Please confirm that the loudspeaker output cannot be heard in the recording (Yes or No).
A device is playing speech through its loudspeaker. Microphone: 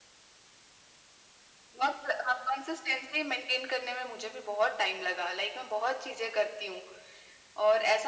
No